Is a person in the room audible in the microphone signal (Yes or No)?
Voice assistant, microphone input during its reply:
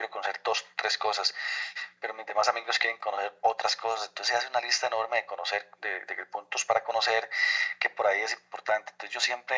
No